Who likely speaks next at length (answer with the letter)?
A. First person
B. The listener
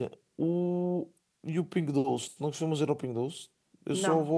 A